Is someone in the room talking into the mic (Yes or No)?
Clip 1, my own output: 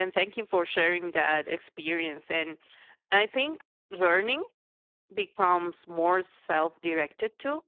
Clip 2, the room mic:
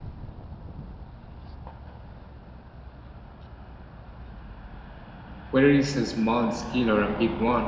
Yes